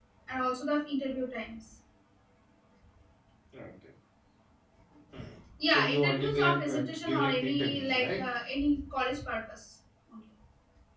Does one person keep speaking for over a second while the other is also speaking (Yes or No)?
Yes